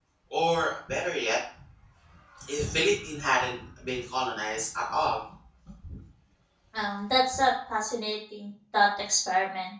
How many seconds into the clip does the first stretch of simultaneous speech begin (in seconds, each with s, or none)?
none